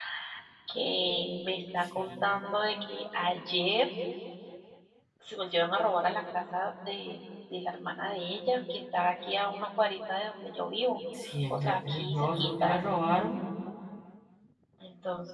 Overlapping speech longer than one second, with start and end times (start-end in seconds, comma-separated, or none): 11.5-12.8